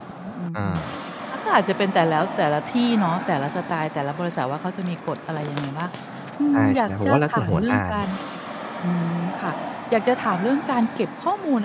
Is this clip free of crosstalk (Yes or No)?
No